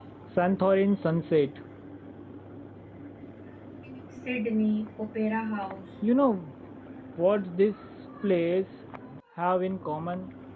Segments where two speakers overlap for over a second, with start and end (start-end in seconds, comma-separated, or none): none